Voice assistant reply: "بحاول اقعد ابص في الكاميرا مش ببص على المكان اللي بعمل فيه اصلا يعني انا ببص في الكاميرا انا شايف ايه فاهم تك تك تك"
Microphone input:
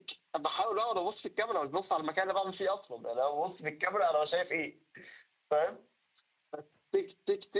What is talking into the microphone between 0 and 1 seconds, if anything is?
echo only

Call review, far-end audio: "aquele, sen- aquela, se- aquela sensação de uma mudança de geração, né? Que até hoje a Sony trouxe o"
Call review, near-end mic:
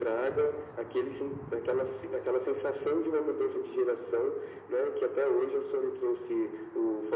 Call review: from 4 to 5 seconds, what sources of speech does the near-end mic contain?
echo only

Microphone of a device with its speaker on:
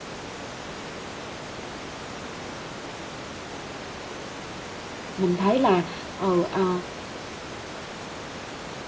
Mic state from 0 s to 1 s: neither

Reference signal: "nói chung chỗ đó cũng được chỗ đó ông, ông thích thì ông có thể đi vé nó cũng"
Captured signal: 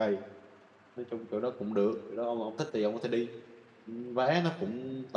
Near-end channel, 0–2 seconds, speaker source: echo only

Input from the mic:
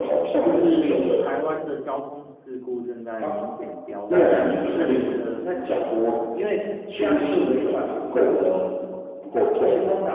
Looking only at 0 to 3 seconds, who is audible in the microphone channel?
both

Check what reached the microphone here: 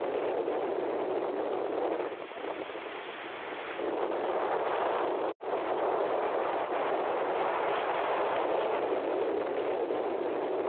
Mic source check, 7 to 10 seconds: neither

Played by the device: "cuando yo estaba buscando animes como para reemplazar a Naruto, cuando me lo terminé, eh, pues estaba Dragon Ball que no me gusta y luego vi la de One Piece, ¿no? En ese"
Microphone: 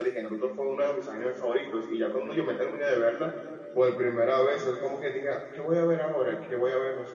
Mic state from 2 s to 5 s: user only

